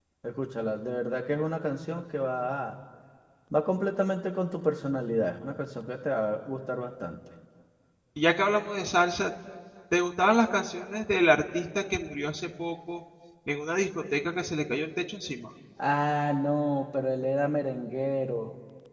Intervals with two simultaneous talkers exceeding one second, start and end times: none

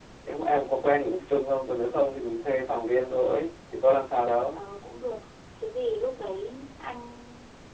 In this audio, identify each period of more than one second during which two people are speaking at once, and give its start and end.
none

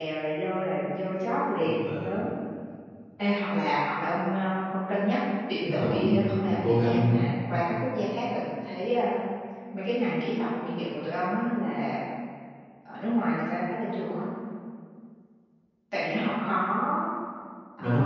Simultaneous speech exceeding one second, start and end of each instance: 5.8-7.1

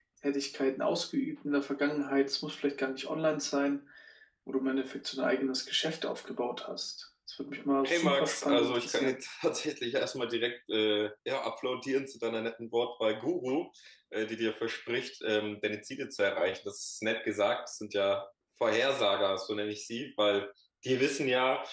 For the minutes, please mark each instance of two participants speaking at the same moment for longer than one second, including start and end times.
7.8-9.2

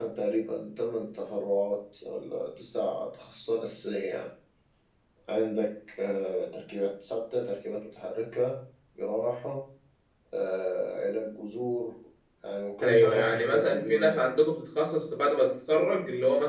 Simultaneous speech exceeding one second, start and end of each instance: 12.8-14.2

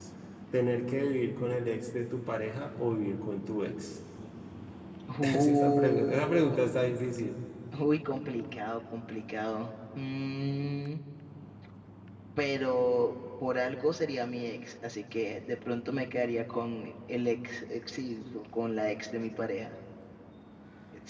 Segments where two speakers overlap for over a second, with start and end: 5.3-6.6

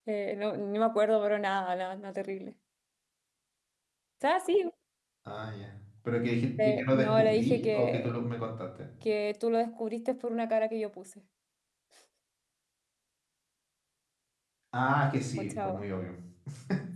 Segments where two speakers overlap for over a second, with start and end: 6.6-8.2

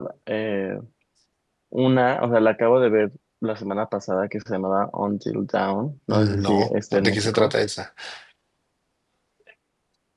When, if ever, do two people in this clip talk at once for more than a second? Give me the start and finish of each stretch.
6.1-7.5

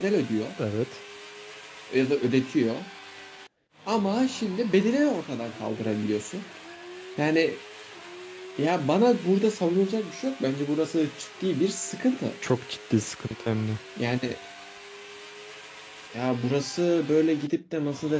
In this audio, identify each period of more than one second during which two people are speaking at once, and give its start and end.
none

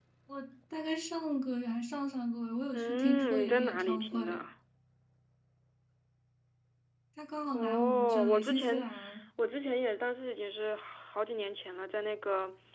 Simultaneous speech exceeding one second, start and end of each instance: 2.7-4.4, 7.5-8.9

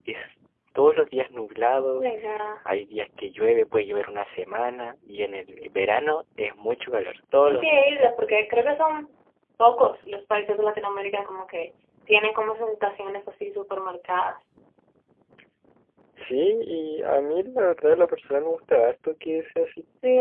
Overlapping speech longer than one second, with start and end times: none

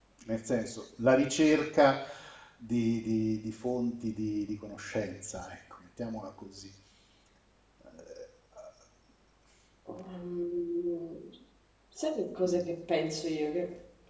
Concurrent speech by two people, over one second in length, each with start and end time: none

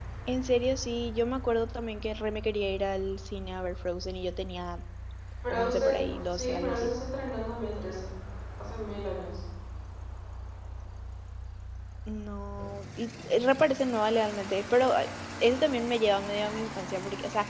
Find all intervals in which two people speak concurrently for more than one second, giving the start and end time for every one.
5.5-6.9

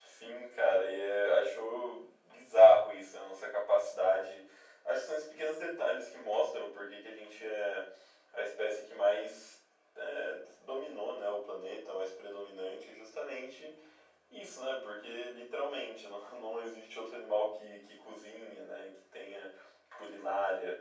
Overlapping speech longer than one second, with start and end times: none

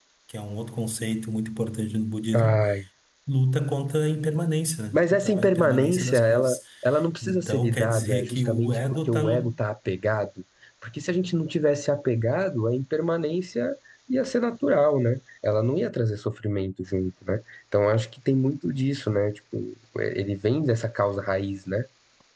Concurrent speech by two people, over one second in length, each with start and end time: 4.9-6.6, 7.2-9.5

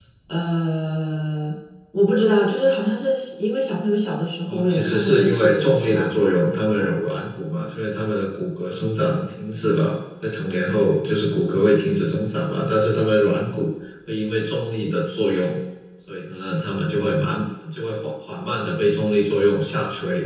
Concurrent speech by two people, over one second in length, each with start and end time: 4.5-6.1

